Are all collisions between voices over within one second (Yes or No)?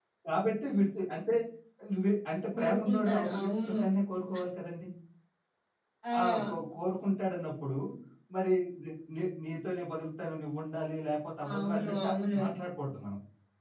No